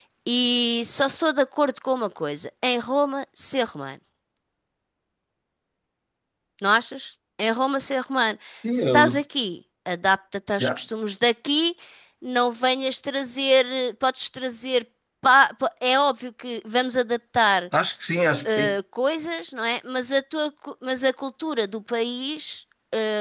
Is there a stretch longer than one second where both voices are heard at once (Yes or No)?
No